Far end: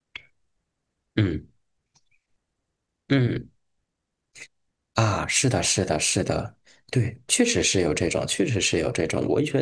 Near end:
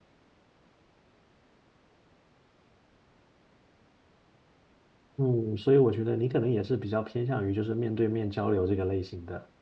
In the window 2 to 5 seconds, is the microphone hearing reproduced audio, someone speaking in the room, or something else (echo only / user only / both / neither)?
neither